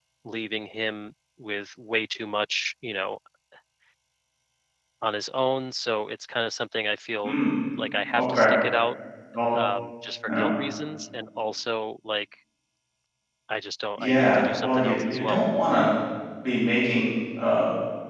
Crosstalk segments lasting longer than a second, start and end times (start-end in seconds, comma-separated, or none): 14.0-15.4